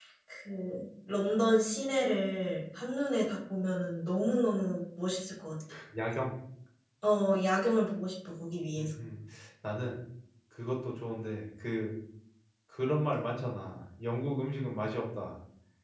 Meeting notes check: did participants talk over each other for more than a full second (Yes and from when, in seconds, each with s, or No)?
No